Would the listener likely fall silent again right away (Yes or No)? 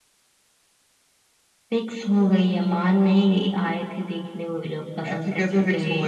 No